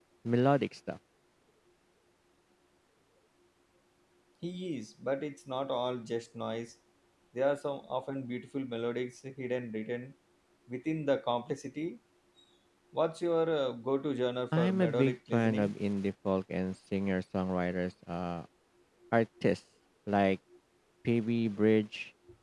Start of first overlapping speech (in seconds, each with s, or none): 14.5 s